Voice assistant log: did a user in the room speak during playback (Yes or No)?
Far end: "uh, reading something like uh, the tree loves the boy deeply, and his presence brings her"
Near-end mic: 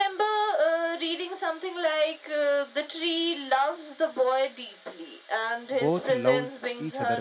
Yes